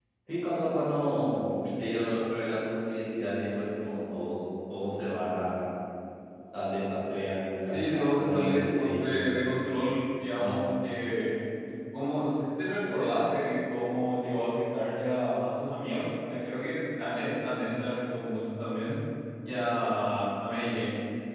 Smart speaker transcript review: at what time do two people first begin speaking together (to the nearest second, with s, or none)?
8 s